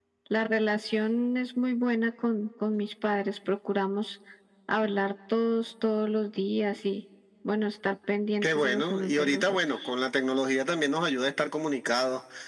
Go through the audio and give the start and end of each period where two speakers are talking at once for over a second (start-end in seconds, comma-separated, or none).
8.4-9.9